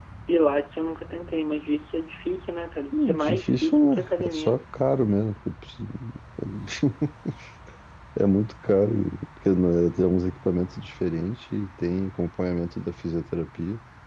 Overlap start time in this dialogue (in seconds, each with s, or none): 2.9 s